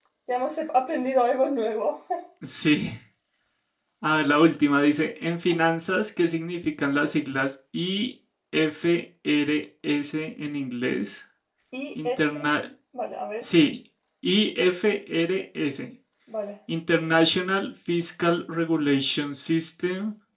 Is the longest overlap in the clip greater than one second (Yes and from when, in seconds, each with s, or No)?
No